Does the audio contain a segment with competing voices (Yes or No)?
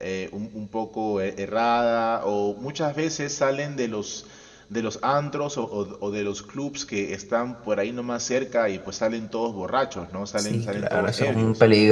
Yes